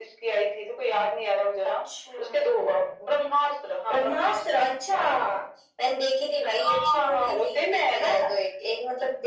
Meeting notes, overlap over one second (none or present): present